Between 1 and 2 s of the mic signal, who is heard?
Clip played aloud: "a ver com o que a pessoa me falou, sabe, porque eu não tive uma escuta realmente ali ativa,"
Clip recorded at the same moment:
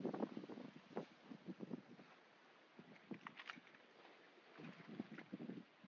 neither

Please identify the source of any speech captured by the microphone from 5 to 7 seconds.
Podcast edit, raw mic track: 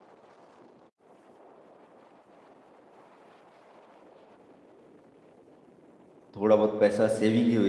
user only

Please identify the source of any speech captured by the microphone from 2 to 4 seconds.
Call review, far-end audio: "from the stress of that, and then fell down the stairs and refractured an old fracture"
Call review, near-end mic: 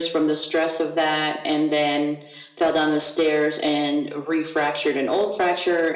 echo only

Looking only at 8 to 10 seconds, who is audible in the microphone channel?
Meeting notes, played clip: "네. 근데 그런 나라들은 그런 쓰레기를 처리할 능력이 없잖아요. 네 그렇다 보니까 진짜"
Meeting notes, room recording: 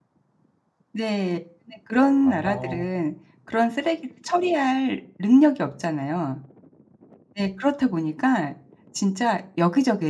echo only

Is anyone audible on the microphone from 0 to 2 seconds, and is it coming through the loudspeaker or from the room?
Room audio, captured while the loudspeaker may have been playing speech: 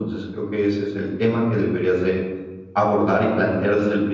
echo only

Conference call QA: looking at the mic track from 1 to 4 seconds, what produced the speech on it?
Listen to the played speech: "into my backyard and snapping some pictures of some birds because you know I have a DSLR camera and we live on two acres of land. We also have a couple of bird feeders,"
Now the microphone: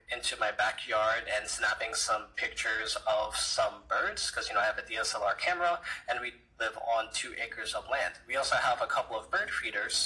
echo only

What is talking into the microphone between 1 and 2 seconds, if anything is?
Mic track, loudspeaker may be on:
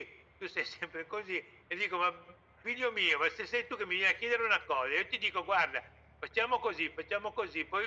echo only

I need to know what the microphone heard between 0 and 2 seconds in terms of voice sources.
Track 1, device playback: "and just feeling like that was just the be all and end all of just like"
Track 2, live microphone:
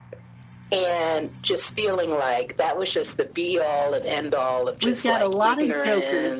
echo only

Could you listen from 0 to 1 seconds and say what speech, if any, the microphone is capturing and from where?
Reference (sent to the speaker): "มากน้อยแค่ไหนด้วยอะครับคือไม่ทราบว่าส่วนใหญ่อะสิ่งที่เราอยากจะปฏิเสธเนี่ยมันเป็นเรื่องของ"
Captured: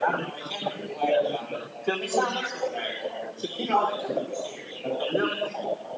echo only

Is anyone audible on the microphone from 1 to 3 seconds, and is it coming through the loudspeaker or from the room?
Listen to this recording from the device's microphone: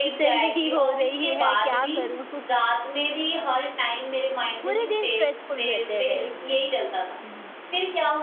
both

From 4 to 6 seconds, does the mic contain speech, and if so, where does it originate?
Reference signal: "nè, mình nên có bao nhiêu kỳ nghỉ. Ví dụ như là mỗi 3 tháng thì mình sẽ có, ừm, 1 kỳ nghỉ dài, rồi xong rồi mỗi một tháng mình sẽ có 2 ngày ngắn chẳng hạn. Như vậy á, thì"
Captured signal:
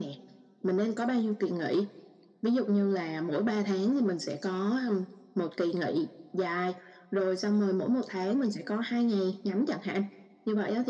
echo only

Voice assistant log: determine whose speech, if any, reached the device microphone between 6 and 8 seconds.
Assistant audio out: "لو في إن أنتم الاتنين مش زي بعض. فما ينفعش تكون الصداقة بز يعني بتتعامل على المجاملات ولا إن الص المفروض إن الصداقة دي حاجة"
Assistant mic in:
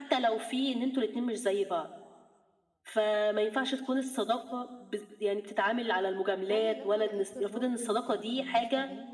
both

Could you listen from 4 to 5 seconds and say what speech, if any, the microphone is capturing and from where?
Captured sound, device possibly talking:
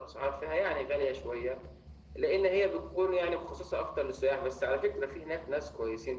echo only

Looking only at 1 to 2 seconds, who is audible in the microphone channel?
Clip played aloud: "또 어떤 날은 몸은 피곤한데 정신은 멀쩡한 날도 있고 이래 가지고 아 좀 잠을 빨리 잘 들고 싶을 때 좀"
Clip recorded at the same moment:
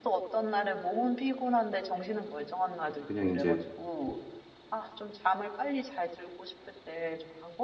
echo only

